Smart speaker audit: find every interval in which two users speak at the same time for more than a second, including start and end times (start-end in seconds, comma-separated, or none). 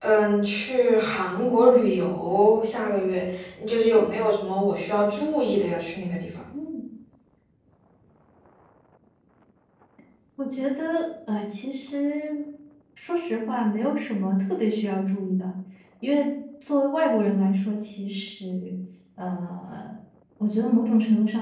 none